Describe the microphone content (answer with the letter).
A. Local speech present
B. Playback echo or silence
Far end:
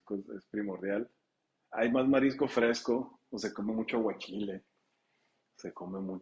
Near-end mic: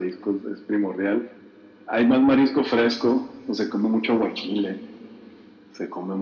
B